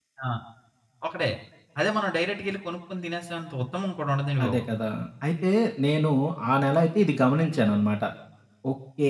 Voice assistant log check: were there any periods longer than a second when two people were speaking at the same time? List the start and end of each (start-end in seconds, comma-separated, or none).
none